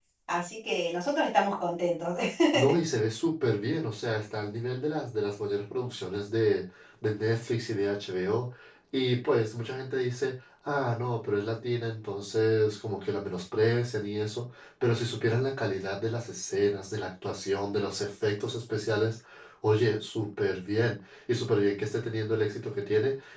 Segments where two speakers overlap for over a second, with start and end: none

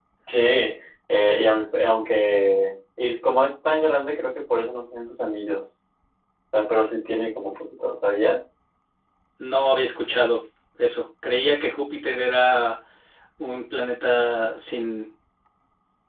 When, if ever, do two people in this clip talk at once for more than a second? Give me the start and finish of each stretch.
none

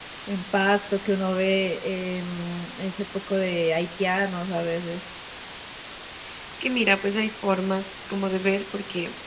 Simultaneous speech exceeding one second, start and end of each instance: none

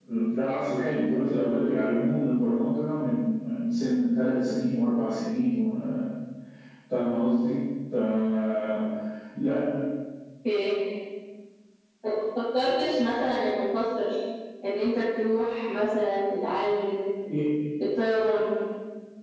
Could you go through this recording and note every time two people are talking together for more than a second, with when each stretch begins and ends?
none

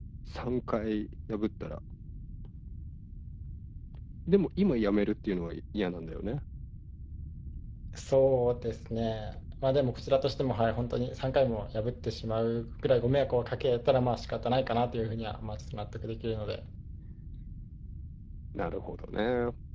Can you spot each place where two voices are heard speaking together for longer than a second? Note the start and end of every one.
none

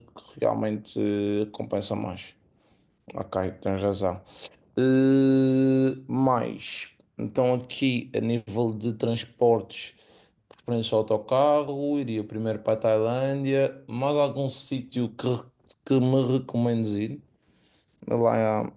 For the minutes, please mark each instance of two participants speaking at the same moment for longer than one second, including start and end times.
none

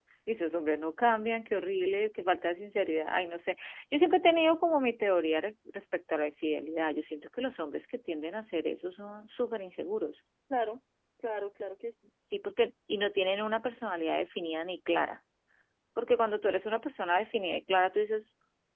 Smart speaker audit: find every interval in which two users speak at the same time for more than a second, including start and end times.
none

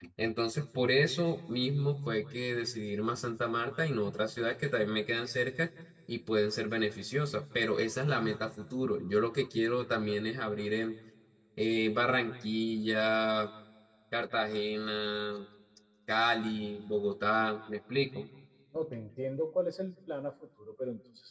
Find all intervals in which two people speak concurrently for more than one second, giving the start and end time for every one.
none

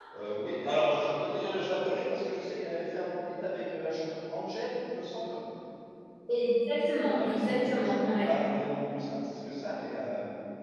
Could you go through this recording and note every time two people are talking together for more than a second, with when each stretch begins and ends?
7.1-8.3

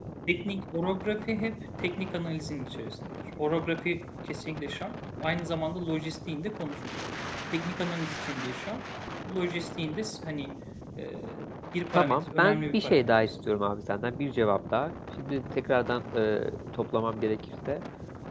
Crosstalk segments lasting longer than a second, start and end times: 11.9-13.3

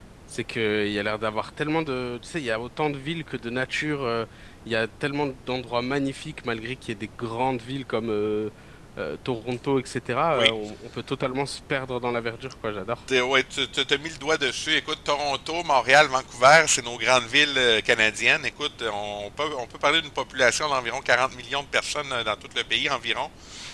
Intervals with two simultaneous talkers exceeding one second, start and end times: none

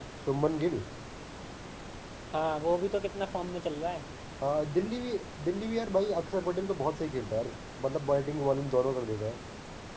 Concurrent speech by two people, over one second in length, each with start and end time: none

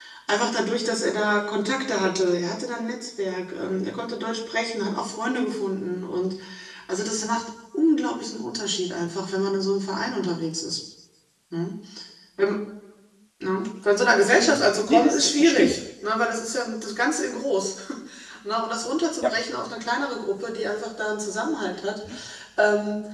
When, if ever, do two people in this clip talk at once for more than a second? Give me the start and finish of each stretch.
14.4-15.8

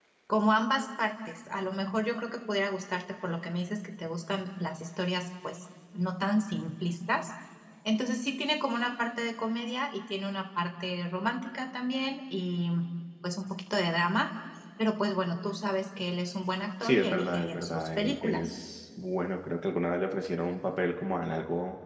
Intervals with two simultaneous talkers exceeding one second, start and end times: 16.8-18.5

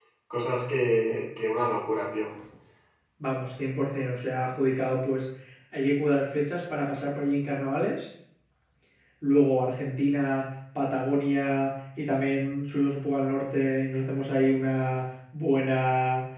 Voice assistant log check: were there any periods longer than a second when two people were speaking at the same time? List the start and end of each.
none

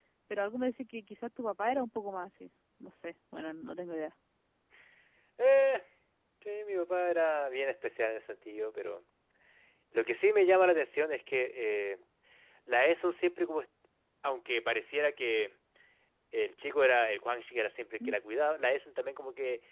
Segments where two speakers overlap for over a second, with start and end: none

